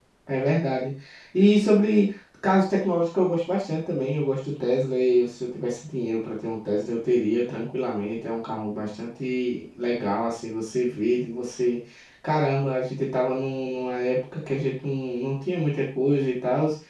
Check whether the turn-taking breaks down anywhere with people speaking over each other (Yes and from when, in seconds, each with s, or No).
No